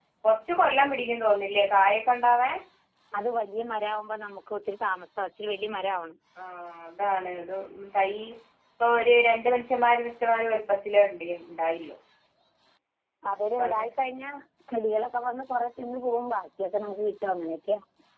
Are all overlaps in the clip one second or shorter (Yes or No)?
Yes